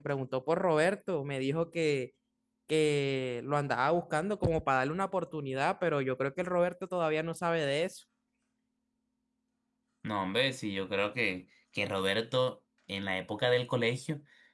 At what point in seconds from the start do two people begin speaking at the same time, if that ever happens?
none

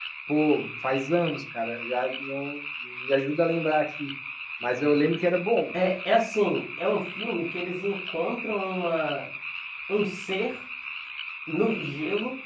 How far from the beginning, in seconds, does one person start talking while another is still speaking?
none

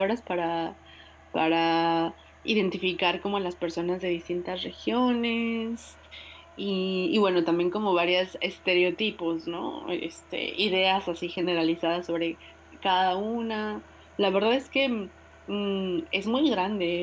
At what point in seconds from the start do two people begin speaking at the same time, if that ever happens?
none

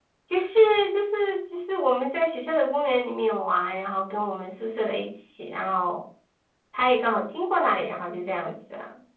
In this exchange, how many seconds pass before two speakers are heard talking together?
none

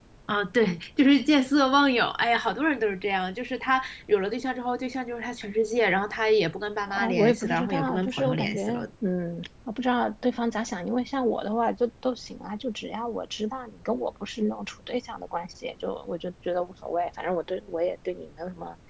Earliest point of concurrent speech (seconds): 6.9 s

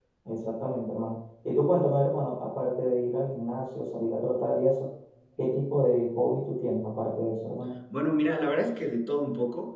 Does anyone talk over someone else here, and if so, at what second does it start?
none

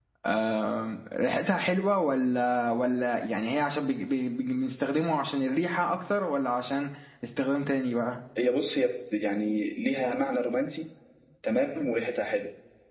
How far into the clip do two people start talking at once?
none

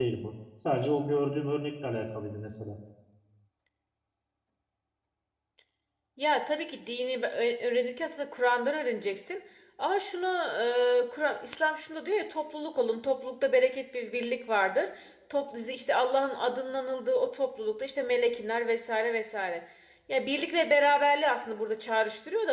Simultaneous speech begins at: none

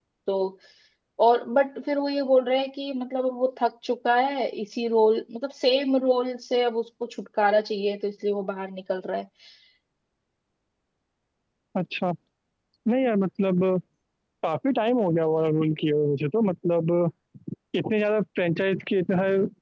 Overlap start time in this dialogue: none

